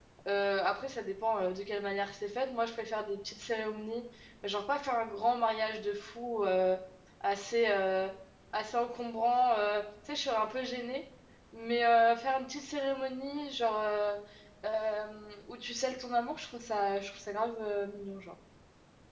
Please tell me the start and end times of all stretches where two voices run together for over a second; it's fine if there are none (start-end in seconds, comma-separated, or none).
none